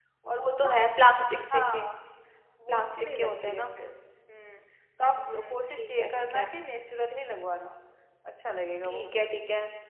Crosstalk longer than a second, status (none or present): present